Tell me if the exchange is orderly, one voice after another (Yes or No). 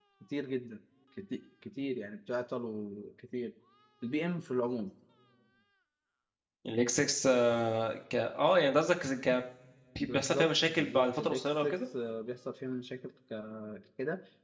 No